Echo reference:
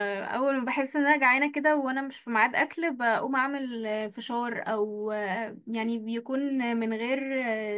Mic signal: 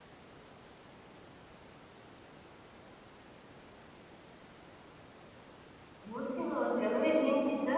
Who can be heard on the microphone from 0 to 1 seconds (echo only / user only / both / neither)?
neither